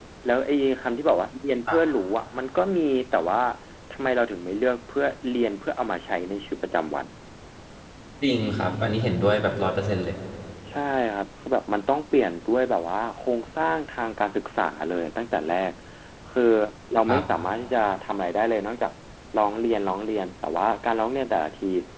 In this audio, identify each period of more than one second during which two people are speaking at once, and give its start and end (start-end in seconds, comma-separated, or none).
none